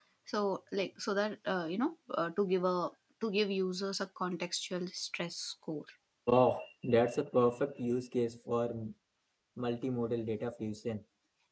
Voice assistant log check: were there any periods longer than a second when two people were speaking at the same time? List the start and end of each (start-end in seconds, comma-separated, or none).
none